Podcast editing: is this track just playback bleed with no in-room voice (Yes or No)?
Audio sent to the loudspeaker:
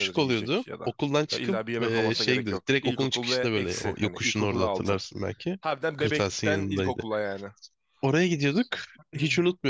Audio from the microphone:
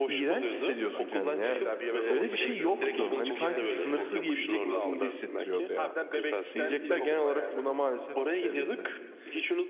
No